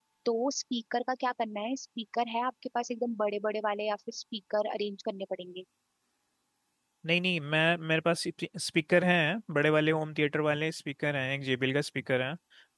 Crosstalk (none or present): none